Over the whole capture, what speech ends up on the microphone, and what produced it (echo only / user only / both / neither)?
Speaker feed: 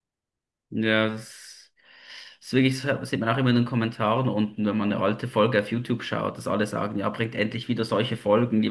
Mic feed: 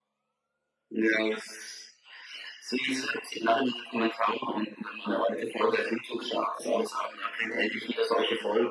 echo only